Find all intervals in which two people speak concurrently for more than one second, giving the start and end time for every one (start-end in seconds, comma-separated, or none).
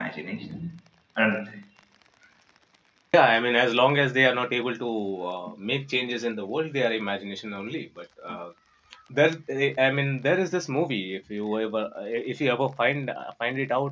none